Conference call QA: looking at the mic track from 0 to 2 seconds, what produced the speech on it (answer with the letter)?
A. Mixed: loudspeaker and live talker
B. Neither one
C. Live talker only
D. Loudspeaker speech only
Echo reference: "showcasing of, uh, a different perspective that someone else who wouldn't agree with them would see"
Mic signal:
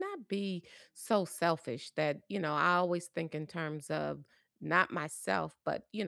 C